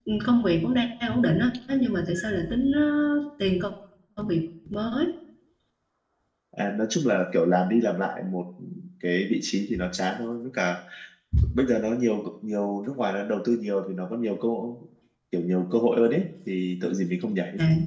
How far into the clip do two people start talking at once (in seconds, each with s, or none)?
none